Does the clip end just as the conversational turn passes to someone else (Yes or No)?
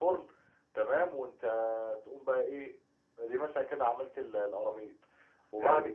Yes